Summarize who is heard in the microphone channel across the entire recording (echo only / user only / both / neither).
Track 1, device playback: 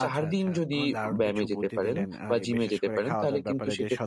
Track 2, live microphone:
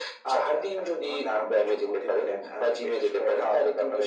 echo only